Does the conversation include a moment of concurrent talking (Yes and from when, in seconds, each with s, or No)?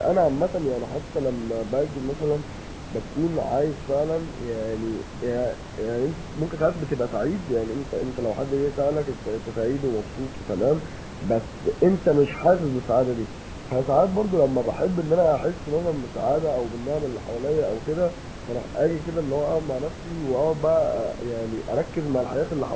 No